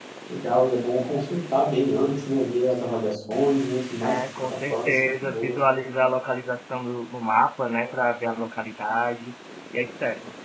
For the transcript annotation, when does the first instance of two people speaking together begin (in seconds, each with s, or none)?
4.0 s